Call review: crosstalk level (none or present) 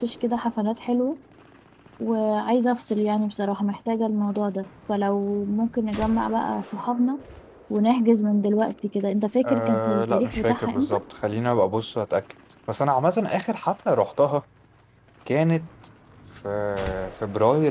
present